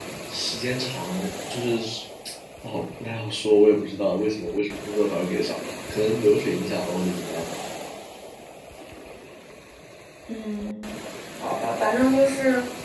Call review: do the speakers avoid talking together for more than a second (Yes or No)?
Yes